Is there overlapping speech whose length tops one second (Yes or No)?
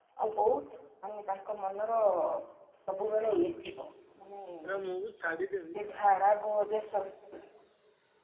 No